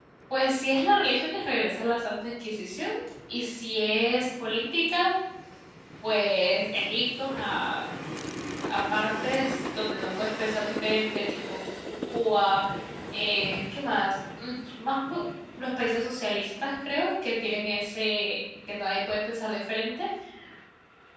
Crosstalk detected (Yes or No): No